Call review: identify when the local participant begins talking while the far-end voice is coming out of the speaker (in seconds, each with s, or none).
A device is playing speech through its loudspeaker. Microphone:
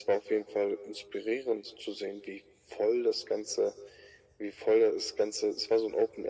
none